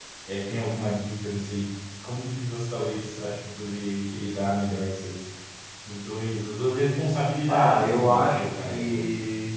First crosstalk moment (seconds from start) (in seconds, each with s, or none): 7.5 s